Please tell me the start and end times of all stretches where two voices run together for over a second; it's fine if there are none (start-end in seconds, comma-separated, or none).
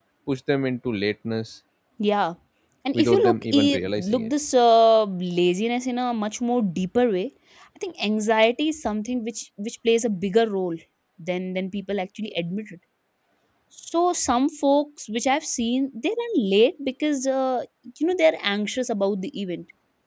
2.9-4.3